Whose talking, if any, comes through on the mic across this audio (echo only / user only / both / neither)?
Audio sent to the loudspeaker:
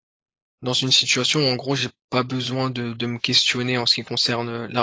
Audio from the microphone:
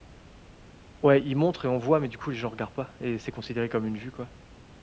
user only